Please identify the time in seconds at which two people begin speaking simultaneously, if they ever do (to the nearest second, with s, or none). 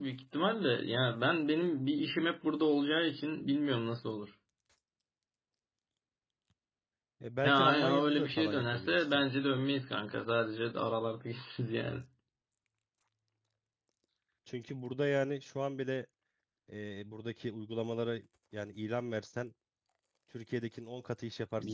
7 s